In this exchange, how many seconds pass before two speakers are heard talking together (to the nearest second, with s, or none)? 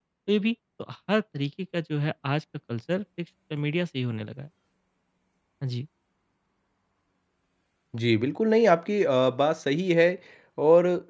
none